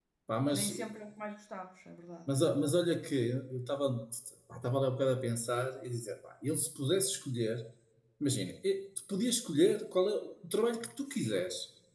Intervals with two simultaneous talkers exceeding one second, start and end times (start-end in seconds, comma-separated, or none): none